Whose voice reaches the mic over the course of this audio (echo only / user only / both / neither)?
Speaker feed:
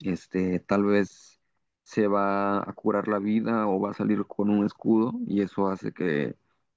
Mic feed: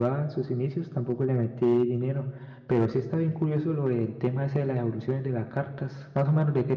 user only